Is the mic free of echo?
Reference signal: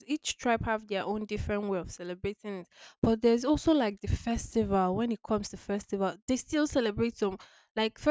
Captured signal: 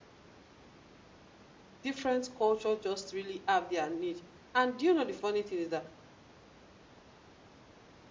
Yes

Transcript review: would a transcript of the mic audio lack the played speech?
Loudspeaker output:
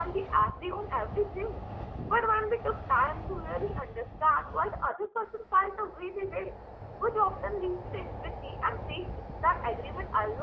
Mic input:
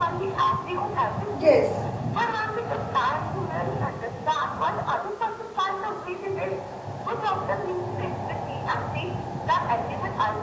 No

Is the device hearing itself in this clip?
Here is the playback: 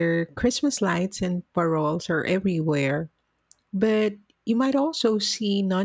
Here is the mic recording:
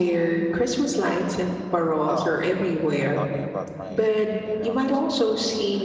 Yes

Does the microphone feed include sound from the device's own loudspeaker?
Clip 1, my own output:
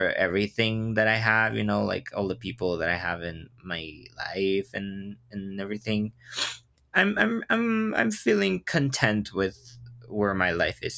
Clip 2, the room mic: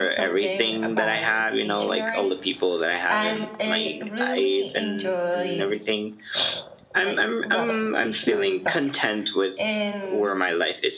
Yes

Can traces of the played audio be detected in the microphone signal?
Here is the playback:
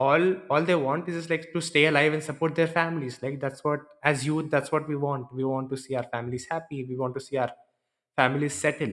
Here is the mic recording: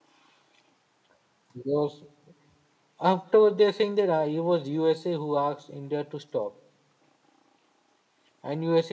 No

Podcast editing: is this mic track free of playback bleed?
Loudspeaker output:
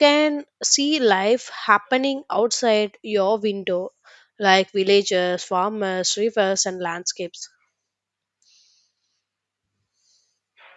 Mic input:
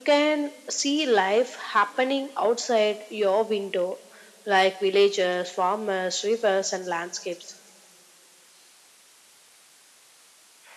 No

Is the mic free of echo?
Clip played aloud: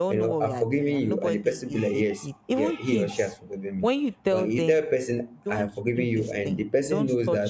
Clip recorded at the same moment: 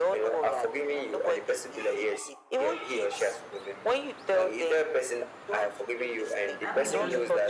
No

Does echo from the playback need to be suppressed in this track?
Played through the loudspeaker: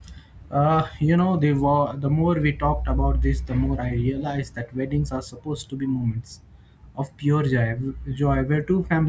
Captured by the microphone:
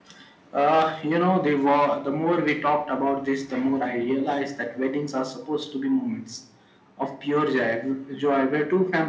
Yes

